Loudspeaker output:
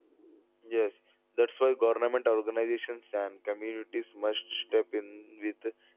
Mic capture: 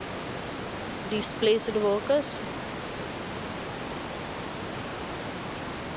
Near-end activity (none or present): present